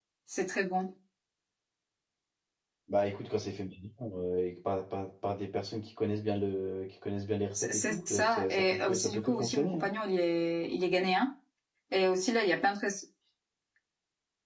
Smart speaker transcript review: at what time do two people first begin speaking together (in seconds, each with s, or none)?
7.6 s